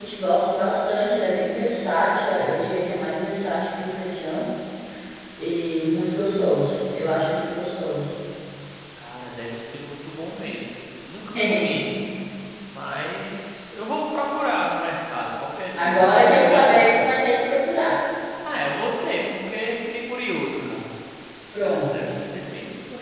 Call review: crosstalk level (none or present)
present